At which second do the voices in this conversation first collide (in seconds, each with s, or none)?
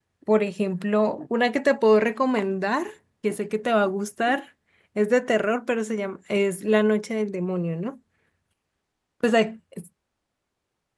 none